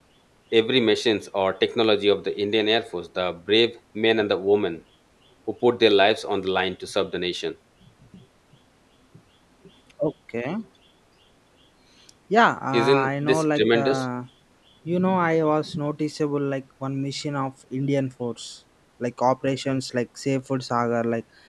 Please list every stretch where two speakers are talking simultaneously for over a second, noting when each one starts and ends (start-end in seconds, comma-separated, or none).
12.7-14.0